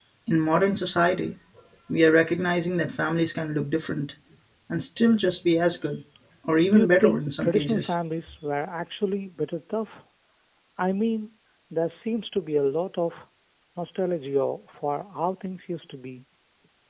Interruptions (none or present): present